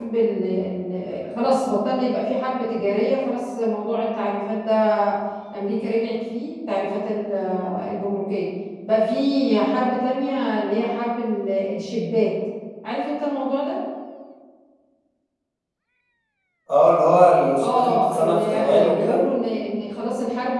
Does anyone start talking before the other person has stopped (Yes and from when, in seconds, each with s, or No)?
Yes, from 17.6 s